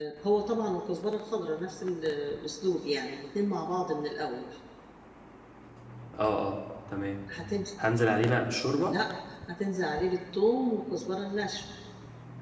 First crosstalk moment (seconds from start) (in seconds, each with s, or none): none